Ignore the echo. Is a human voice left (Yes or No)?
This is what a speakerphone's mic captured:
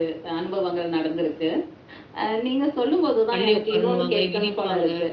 Yes